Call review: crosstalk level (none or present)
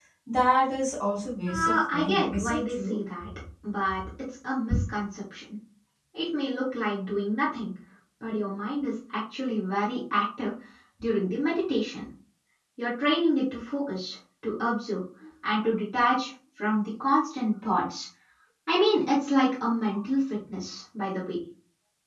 present